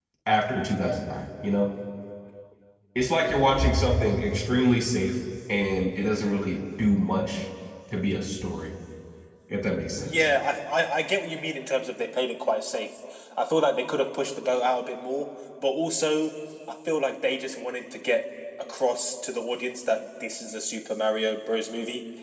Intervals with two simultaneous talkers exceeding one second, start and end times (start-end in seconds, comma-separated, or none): none